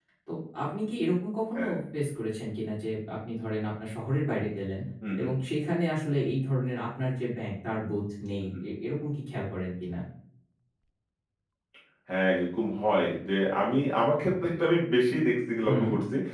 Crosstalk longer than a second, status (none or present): none